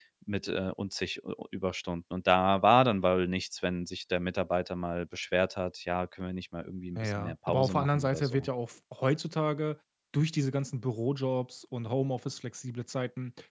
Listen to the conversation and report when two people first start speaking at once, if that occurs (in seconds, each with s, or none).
7.0 s